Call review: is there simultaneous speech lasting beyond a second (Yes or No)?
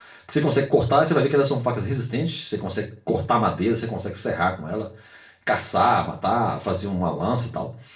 No